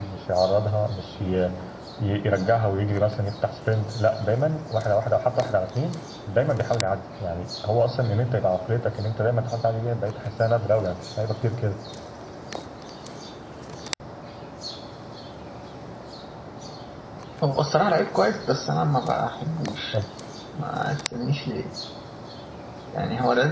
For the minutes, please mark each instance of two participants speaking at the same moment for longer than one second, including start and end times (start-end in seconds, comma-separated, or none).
none